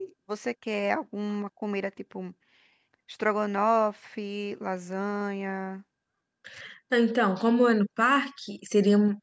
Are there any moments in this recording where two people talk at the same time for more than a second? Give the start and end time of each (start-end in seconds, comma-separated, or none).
none